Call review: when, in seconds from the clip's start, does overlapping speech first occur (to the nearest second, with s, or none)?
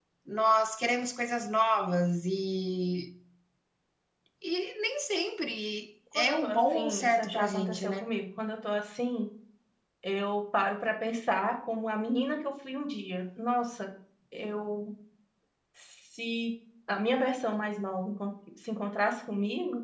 6 s